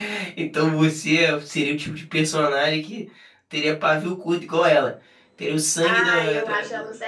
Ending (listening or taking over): taking over